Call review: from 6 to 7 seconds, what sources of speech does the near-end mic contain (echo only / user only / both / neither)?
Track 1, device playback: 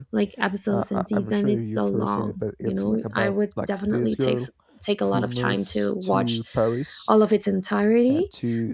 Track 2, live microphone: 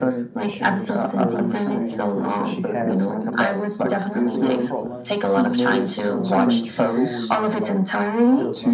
both